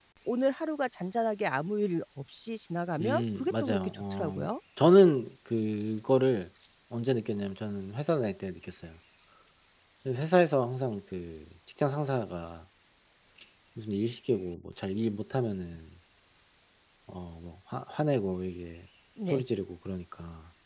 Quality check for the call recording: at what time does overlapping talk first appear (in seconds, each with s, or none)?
3.0 s